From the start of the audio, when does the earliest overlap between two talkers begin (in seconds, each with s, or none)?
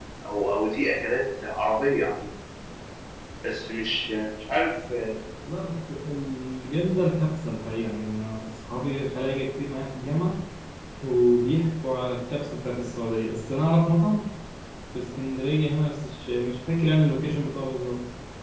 none